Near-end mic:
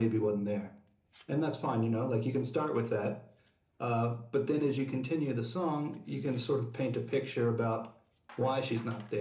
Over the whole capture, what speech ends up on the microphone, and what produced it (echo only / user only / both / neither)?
echo only